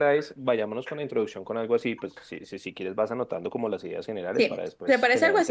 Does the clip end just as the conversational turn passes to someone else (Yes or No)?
Yes